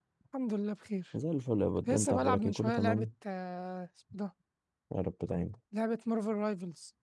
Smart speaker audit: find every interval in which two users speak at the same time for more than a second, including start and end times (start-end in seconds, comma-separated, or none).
1.9-3.1